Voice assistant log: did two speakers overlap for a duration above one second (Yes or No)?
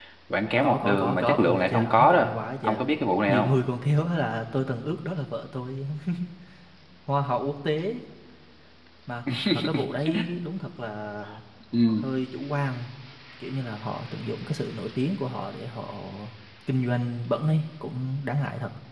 Yes